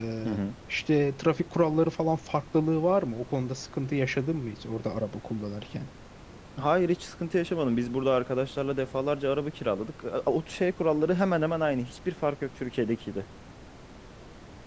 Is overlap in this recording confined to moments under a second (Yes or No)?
Yes